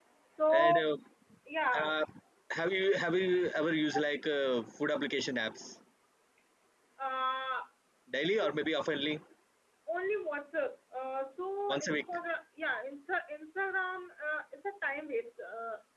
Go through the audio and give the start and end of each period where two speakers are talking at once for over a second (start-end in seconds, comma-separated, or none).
none